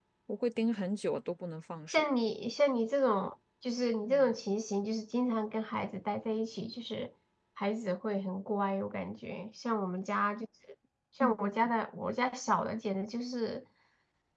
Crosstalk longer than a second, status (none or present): none